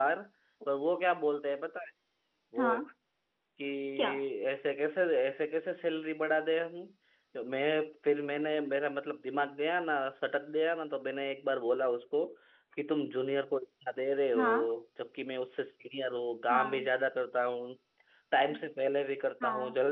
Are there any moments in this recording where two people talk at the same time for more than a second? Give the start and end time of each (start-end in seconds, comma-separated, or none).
none